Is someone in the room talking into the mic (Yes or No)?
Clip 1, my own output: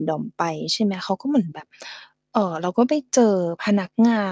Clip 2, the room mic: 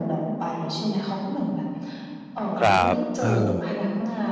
Yes